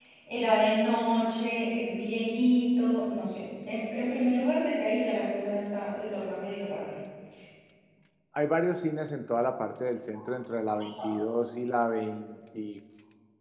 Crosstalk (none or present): none